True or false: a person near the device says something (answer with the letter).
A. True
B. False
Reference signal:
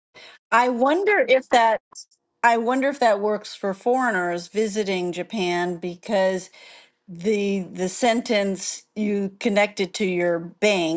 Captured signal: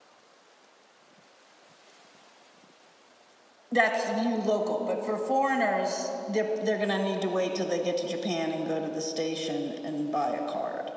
A